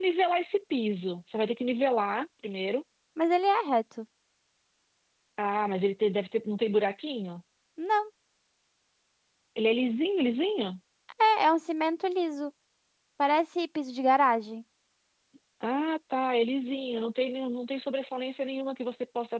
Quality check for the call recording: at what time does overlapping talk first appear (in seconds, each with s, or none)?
none